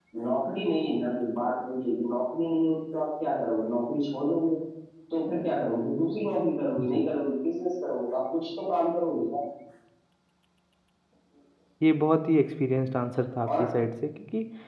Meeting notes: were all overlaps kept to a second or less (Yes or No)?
Yes